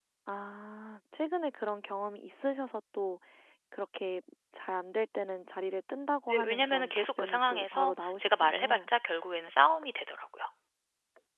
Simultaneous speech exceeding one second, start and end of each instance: 6.3-8.9

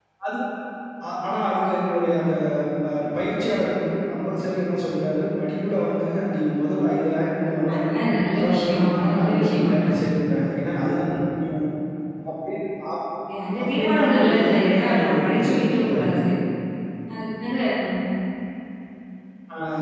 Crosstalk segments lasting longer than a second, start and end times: 8.4-10.0, 13.6-16.1

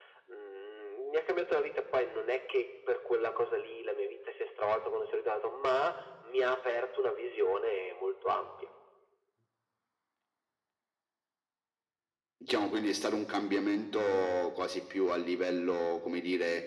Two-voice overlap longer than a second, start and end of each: none

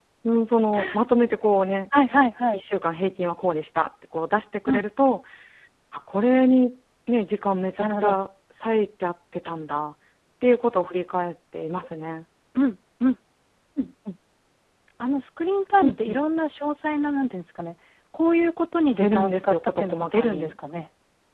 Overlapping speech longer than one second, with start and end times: 19.0-20.5

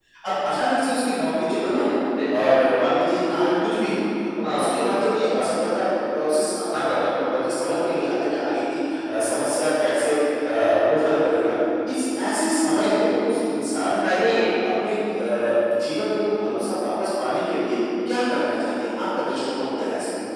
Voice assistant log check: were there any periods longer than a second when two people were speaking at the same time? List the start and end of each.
none

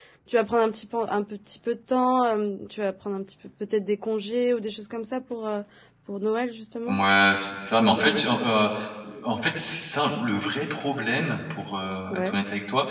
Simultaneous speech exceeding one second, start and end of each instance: none

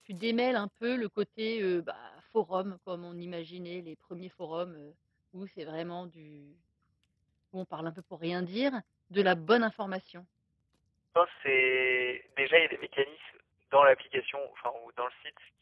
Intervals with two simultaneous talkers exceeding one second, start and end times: none

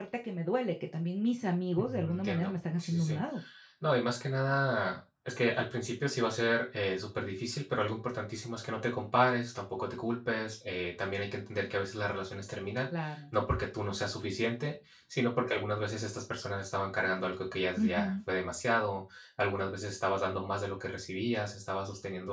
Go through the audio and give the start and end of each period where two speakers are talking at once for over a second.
1.8-3.2

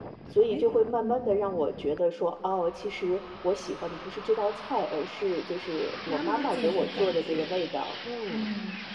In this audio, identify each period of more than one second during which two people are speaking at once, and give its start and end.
6.1-7.5

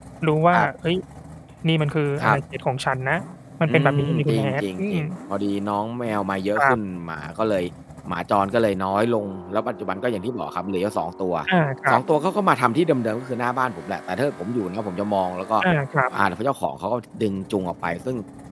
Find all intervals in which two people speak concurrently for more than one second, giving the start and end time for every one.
3.7-5.0

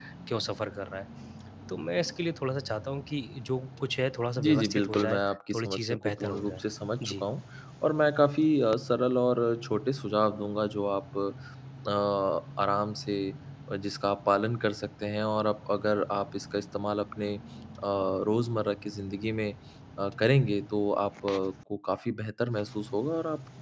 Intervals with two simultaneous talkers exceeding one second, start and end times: 4.4-6.6

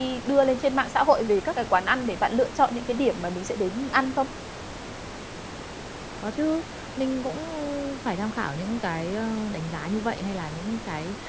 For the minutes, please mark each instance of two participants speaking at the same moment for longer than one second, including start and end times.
none

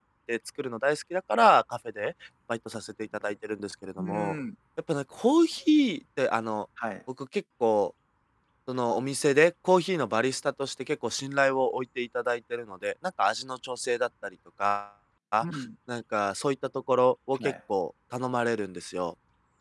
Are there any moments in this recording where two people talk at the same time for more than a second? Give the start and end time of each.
none

